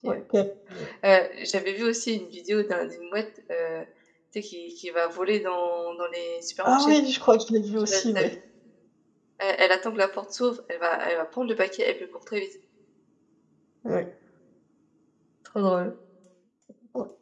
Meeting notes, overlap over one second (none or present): none